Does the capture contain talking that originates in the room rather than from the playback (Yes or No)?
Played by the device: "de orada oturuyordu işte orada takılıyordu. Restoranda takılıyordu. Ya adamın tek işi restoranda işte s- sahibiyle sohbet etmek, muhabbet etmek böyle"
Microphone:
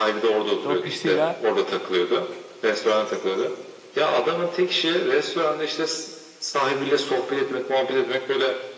Yes